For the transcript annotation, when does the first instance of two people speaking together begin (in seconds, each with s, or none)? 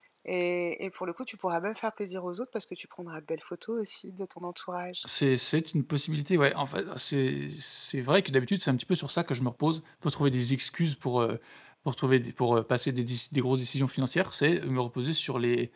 none